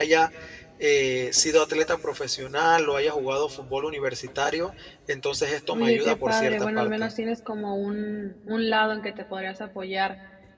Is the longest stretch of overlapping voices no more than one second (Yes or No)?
No